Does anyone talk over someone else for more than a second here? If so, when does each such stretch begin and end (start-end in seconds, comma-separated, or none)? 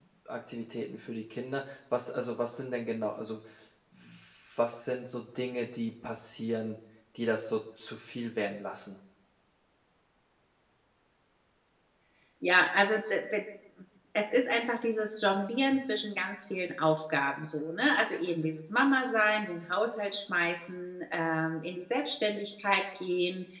none